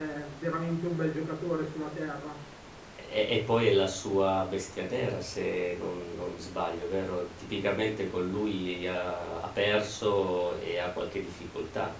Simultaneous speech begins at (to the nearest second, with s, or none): none